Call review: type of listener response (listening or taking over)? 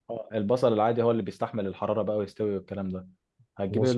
listening